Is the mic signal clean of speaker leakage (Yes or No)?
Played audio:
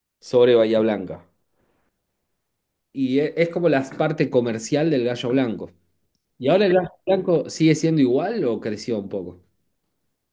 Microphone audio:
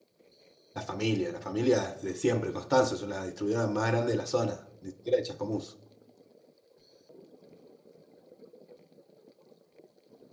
Yes